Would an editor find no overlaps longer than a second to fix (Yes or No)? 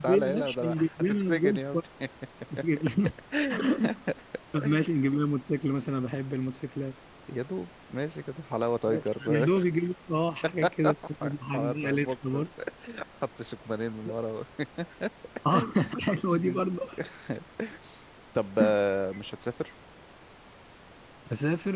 No